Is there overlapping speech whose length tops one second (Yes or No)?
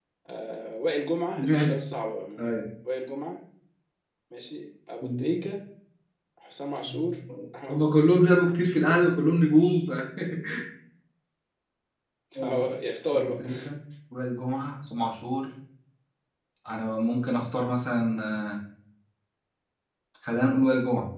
No